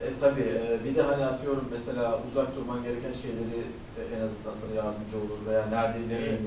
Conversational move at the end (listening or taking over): taking over